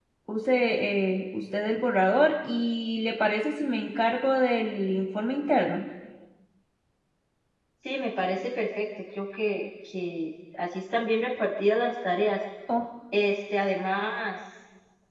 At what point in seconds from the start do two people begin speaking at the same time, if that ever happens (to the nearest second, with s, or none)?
none